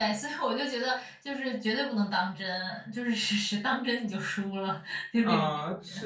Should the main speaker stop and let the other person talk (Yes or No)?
Yes